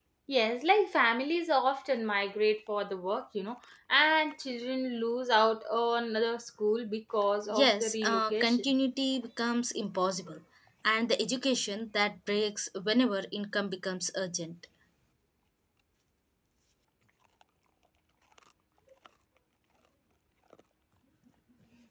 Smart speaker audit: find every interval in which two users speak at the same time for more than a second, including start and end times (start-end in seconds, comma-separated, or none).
7.5-8.7